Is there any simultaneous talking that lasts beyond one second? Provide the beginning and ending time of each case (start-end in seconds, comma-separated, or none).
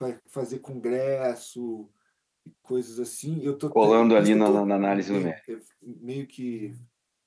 3.7-5.3